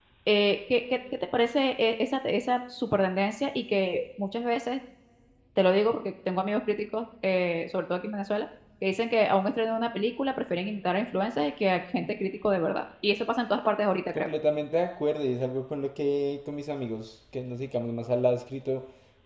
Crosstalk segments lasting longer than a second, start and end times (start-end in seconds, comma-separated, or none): none